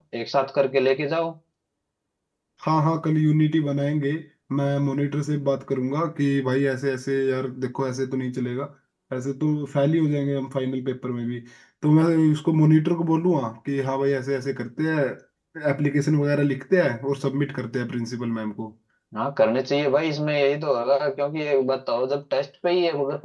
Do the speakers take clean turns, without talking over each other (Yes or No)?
Yes